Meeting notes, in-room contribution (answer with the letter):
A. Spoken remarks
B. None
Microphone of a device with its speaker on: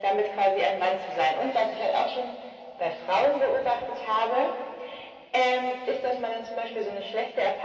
B